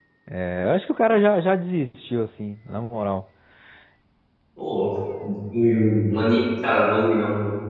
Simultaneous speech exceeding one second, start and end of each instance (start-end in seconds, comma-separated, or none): none